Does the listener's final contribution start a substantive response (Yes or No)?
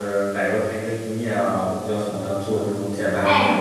Yes